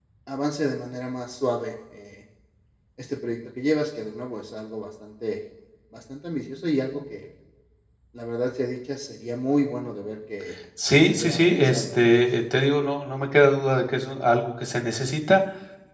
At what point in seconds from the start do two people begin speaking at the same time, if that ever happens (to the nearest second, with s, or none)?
11 s